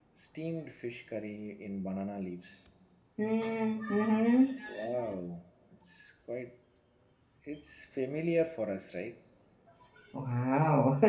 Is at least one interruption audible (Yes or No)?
No